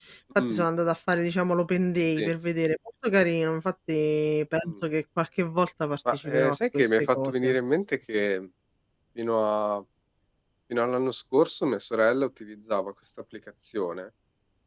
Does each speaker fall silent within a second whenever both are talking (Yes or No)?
No